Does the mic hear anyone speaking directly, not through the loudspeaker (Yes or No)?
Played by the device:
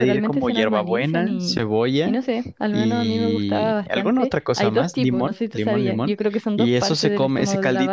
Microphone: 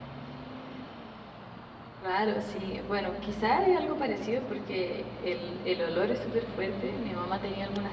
Yes